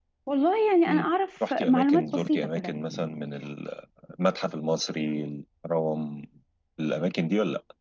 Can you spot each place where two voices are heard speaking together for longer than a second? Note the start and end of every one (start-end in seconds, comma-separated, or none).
1.5-2.8